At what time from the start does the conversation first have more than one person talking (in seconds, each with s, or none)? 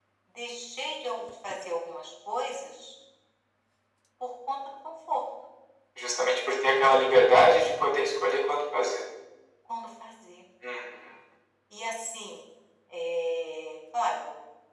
none